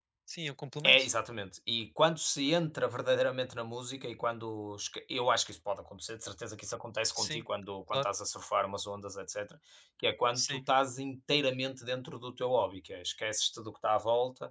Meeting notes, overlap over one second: none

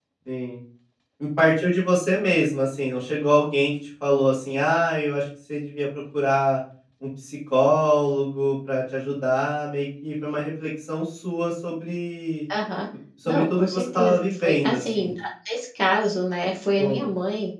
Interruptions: present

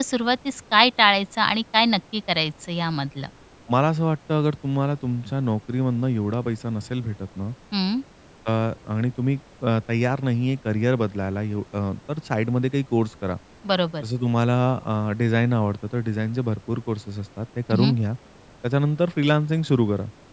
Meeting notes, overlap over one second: none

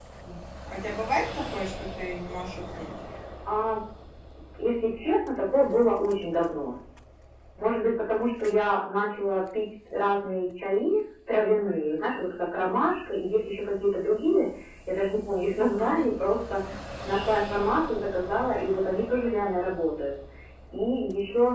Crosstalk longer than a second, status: none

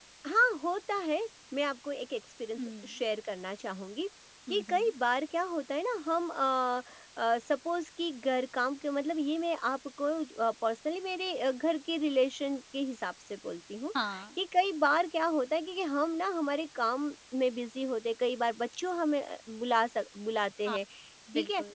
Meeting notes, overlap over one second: none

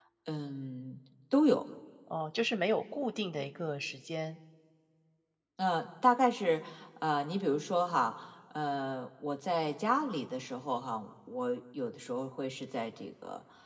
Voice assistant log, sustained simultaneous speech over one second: none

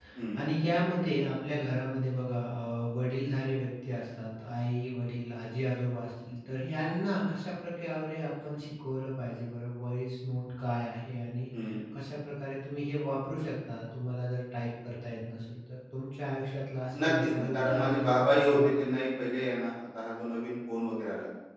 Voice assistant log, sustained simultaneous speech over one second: present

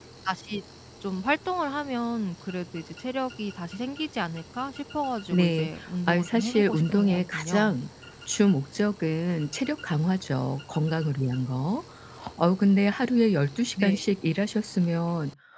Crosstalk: present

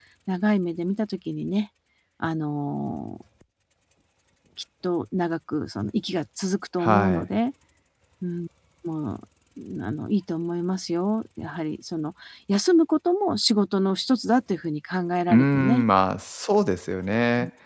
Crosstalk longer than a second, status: none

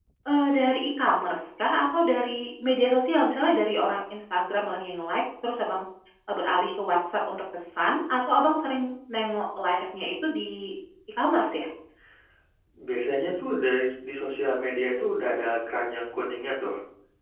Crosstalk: none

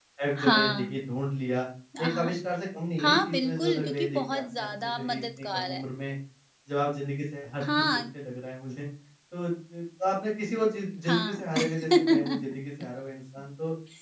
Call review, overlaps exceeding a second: present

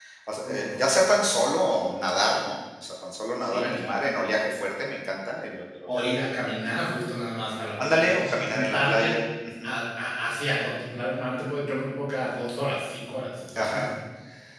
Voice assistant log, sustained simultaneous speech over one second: present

